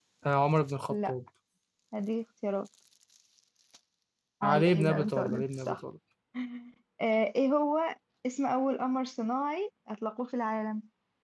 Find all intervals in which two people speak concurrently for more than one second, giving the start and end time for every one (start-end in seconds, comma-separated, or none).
4.4-5.8